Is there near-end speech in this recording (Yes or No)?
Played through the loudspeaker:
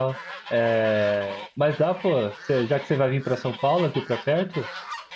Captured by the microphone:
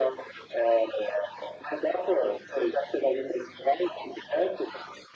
No